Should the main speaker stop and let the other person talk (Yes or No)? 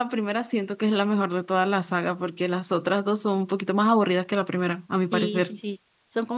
Yes